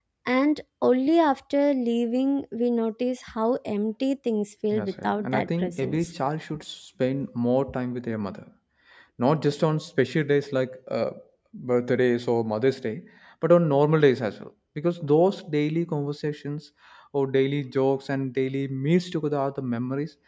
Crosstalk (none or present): present